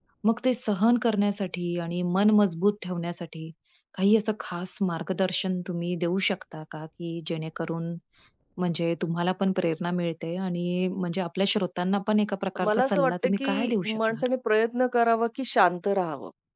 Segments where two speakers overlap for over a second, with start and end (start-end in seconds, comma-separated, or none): 12.6-14.2